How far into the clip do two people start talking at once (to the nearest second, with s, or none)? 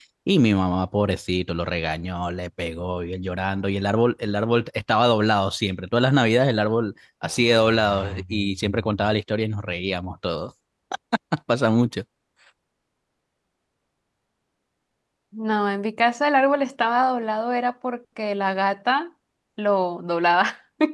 none